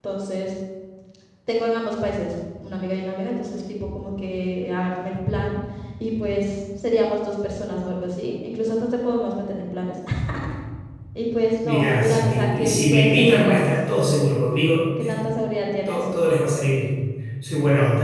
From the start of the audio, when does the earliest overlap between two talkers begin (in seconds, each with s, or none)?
11.6 s